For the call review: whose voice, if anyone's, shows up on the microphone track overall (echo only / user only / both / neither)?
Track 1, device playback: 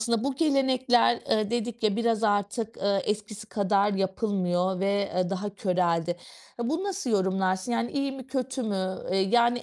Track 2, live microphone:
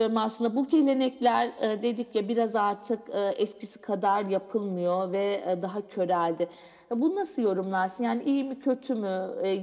echo only